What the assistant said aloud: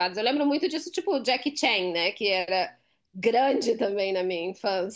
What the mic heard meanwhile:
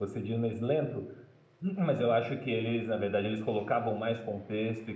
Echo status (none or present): none